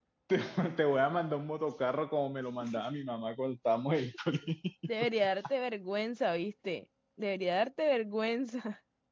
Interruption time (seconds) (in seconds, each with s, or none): none